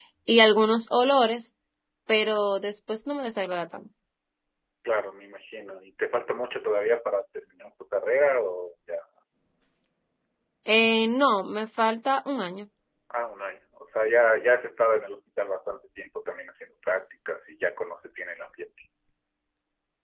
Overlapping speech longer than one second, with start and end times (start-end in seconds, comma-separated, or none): none